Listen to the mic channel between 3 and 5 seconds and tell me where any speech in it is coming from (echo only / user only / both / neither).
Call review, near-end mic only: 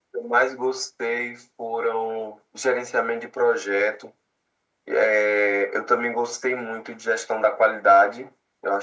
echo only